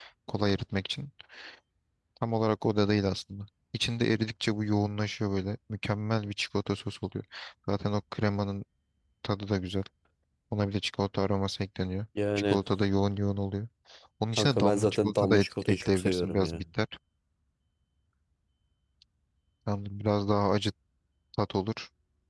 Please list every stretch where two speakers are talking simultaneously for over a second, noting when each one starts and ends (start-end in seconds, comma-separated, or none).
14.4-16.6